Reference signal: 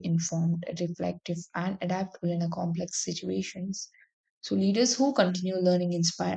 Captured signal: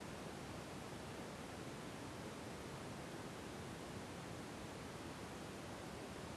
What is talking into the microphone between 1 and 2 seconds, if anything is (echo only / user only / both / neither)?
neither